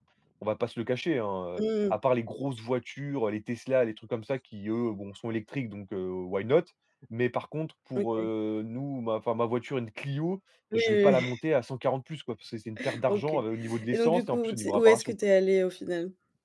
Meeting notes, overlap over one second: present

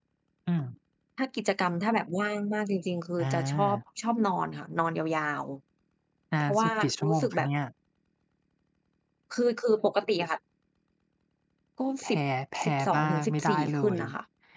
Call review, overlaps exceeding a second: present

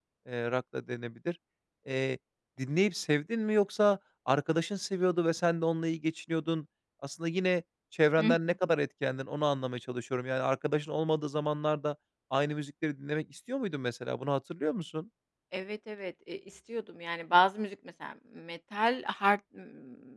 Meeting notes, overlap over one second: none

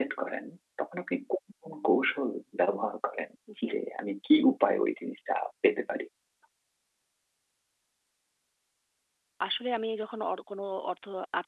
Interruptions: none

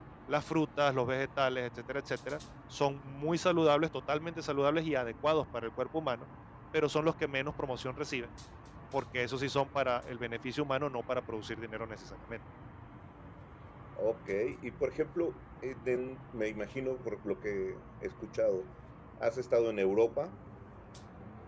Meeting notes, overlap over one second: none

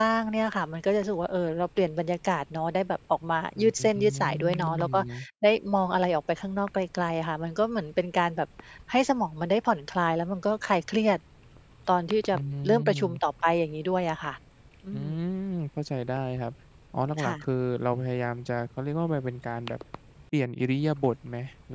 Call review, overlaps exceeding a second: present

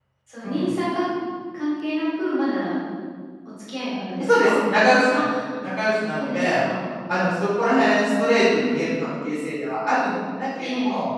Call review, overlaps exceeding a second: none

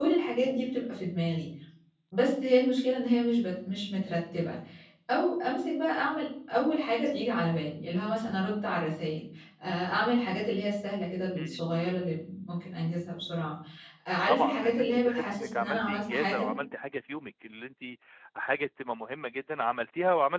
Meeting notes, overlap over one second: present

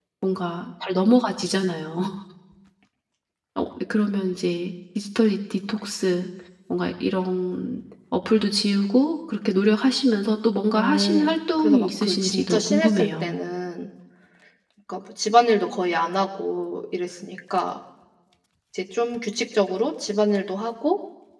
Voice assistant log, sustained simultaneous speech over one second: present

